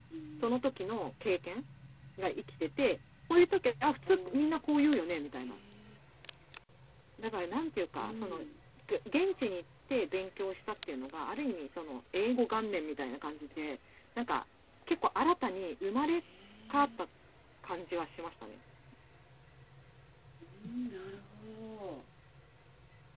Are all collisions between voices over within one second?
Yes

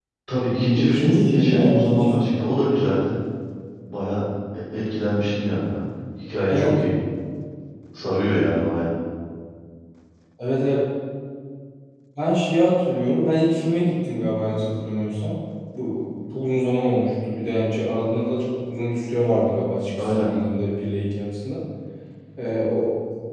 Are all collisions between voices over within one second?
No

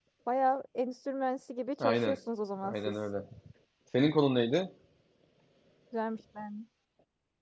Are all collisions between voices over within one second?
Yes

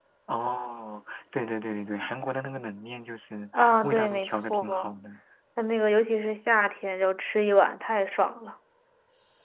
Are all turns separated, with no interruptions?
No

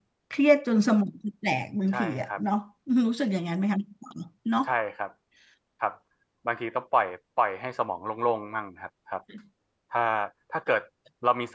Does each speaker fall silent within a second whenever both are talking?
Yes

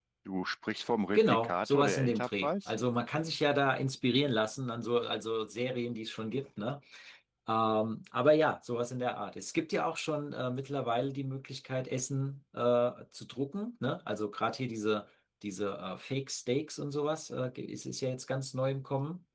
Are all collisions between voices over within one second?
No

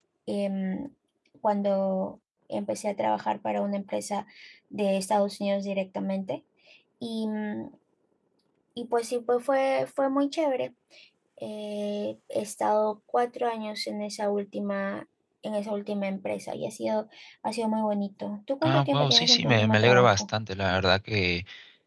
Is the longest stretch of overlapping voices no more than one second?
No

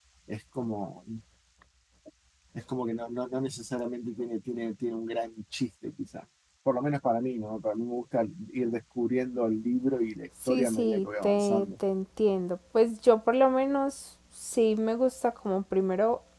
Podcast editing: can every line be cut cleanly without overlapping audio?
No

